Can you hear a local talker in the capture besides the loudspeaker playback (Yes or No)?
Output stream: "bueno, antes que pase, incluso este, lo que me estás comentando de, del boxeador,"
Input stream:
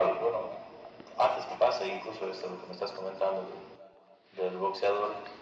No